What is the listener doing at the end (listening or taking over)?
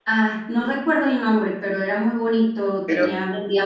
listening